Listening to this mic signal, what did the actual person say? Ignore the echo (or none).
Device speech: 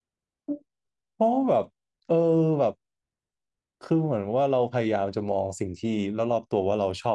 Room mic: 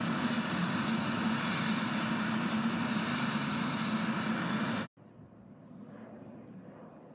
none